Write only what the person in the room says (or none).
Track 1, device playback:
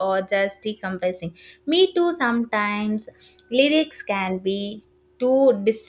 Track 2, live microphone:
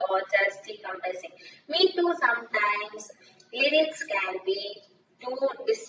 none